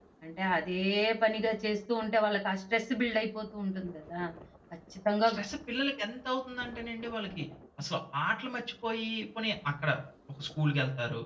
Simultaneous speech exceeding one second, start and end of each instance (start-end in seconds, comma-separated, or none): none